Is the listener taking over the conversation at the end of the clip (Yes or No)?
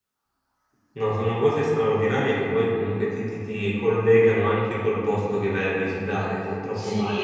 Yes